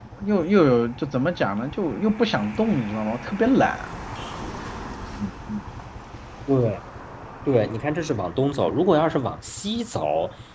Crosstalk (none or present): none